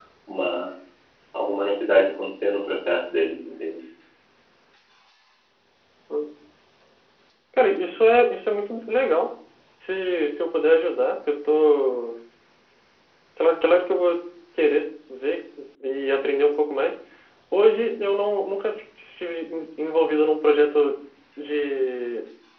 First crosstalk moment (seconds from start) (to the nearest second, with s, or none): none